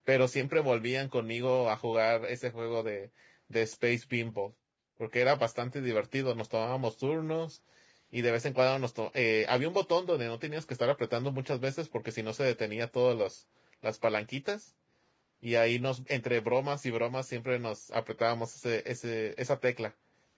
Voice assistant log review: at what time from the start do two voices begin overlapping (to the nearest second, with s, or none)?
none